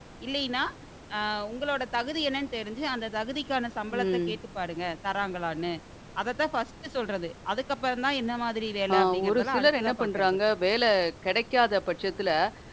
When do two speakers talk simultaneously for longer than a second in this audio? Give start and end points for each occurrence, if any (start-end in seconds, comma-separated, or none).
8.9-10.4